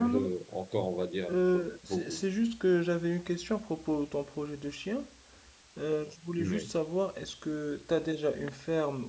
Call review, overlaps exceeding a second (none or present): none